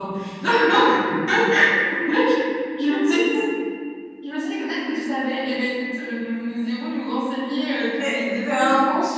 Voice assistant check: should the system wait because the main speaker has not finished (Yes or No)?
No